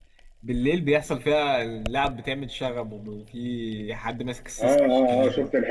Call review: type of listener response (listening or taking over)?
taking over